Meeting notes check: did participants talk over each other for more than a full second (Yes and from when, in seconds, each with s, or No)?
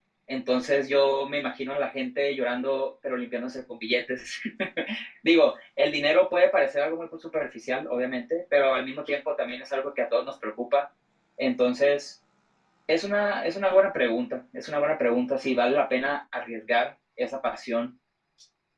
No